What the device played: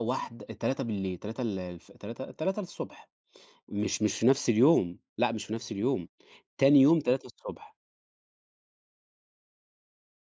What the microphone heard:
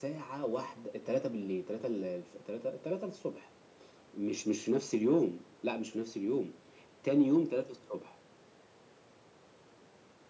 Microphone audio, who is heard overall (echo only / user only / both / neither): echo only